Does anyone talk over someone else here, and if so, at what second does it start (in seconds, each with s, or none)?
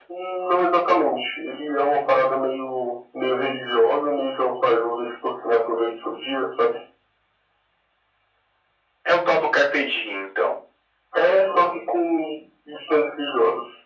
none